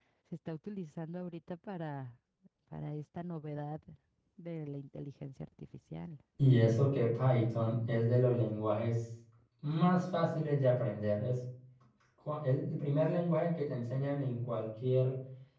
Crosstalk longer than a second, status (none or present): none